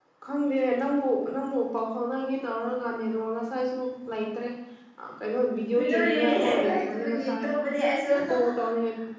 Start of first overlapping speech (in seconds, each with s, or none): 5.8 s